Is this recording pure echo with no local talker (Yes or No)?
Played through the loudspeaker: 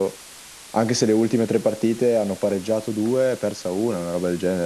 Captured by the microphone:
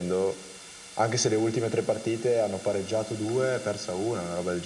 Yes